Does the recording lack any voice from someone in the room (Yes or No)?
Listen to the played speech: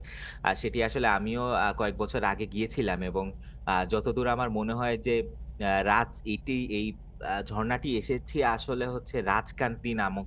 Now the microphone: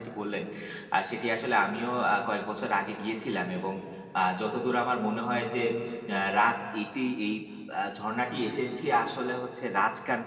Yes